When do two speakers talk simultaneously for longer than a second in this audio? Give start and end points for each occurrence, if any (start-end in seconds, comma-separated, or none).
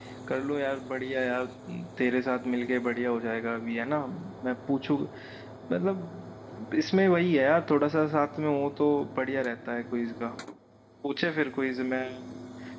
none